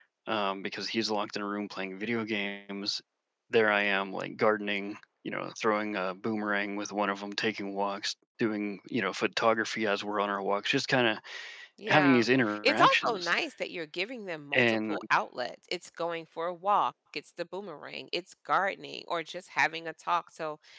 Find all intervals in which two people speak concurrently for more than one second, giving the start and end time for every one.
11.9-13.3

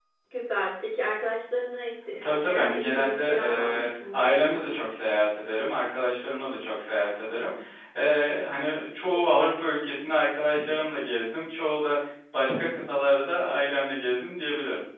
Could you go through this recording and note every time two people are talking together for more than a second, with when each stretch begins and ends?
2.2-4.6

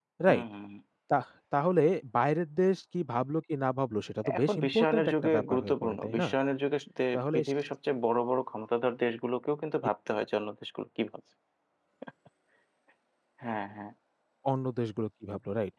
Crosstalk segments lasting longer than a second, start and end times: 4.4-6.3

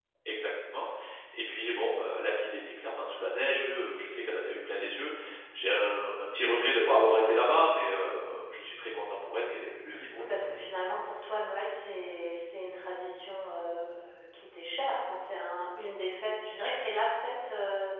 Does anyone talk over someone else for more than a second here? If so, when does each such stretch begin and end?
none

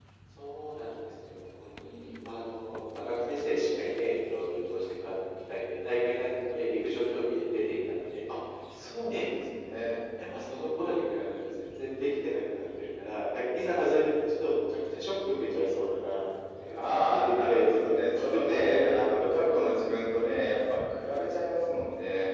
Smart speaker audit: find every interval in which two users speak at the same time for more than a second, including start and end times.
16.7-19.6

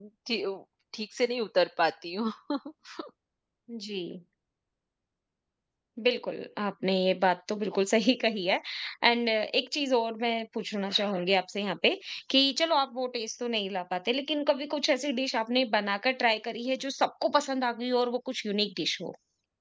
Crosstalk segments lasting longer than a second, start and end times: none

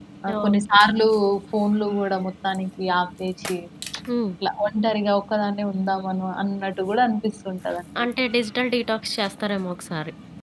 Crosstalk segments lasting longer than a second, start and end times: none

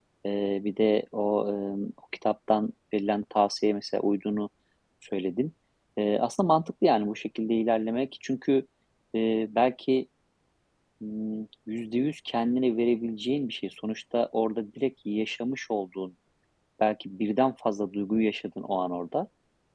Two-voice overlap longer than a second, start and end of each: none

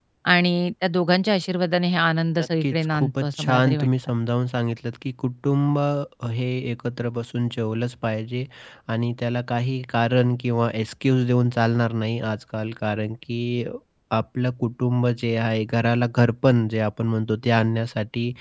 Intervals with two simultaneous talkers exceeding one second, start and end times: 2.6-3.9

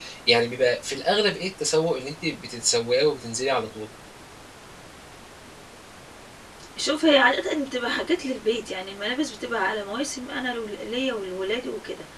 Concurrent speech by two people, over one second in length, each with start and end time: none

